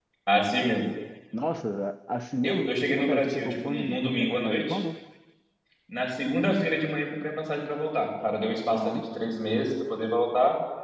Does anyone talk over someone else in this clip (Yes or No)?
Yes